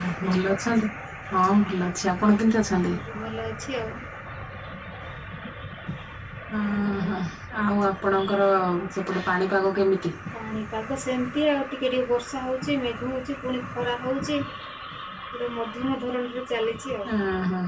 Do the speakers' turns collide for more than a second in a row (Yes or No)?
No